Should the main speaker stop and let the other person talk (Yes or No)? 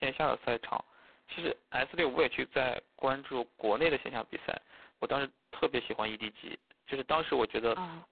No